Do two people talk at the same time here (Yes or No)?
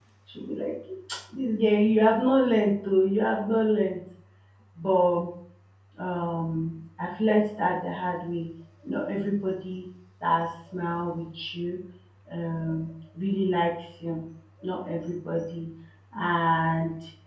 No